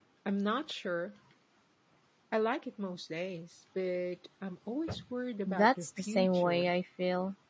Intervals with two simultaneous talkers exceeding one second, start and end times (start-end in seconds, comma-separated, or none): 5.5-6.7